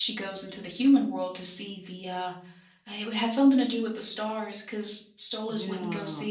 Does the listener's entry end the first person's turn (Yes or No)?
No